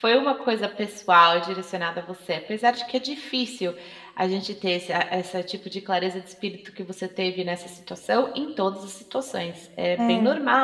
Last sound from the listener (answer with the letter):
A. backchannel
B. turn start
A